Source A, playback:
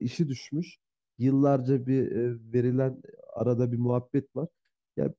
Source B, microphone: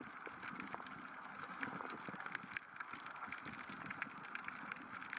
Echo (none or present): none